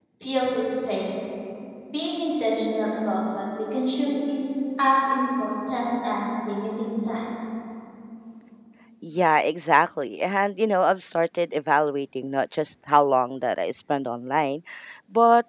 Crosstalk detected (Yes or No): No